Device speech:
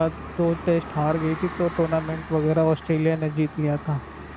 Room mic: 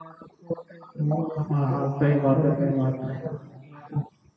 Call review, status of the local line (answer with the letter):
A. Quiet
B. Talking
B